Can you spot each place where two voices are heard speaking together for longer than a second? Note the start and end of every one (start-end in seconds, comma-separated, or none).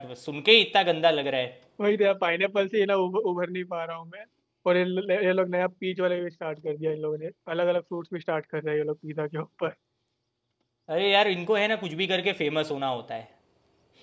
none